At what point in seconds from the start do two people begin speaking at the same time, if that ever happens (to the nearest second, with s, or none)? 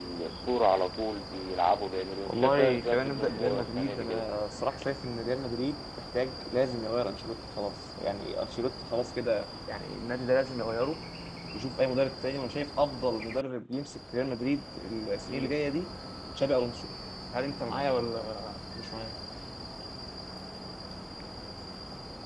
2 s